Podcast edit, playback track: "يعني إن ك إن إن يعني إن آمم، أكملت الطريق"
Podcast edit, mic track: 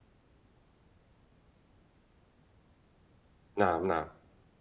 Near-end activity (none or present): present